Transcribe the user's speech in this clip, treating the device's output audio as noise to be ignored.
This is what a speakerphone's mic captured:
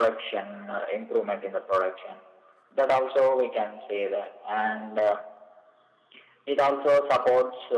none

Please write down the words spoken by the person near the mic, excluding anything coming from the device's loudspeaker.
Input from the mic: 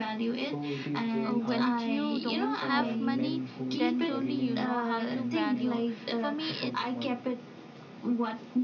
uh, when you don't have money, then only you know how to value. For me, it

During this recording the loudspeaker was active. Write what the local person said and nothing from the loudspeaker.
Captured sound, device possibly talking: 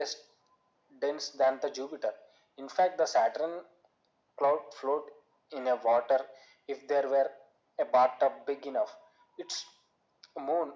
none

